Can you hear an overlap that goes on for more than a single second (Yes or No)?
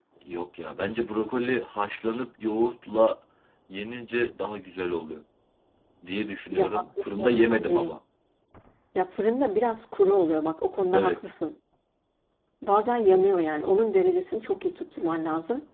Yes